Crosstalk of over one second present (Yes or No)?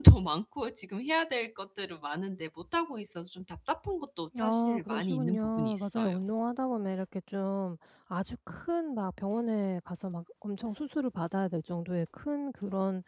Yes